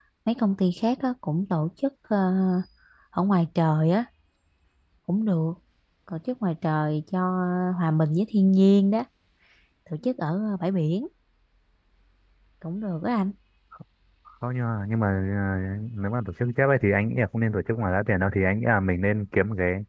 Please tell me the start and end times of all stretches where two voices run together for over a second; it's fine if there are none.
none

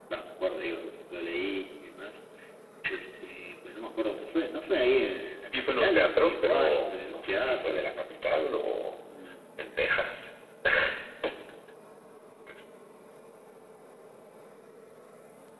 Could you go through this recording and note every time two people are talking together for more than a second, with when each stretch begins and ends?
5.7-7.8

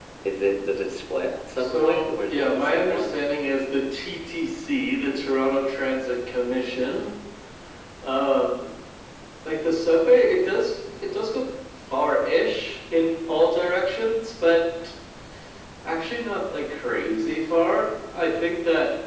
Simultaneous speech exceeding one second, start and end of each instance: 1.6-3.2

